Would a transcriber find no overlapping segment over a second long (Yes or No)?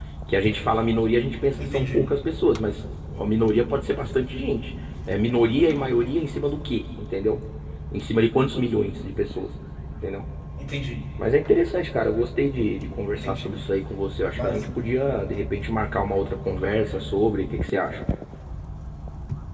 Yes